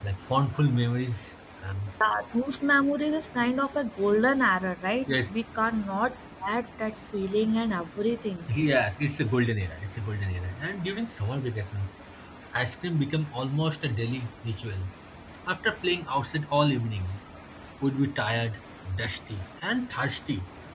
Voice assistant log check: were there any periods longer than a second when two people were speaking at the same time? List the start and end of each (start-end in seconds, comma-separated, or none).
none